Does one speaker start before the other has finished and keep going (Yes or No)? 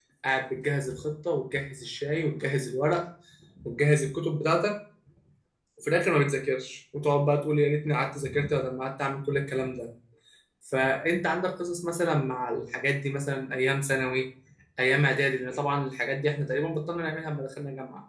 No